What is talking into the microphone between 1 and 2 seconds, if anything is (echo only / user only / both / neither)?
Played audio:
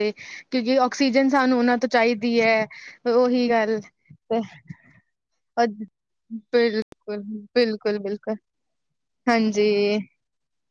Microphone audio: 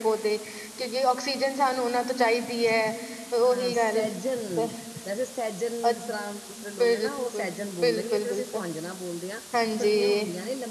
echo only